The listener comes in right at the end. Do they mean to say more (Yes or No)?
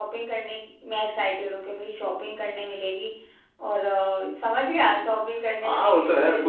Yes